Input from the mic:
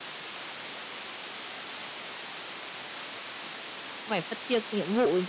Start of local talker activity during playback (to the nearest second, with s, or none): 4 s